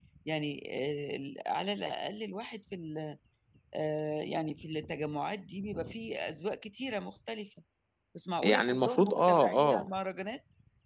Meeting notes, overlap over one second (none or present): present